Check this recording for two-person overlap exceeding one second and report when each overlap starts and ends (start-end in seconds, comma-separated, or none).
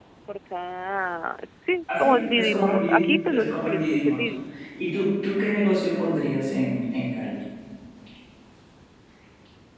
2.0-4.3